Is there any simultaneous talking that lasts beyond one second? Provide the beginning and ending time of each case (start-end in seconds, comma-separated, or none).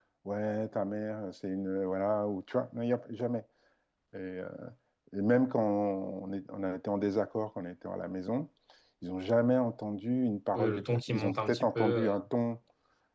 10.6-12.1